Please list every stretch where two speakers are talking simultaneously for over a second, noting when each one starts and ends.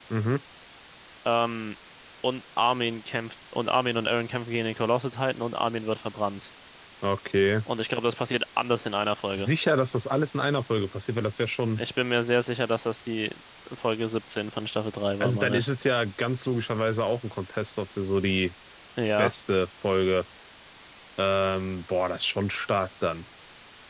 none

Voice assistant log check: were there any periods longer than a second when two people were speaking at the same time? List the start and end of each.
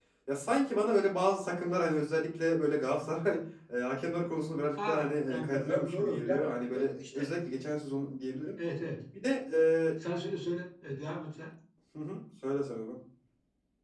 4.8-7.2

